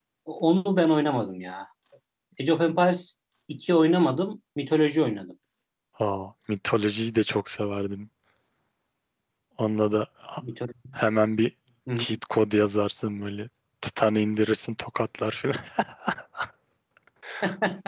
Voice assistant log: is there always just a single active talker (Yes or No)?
Yes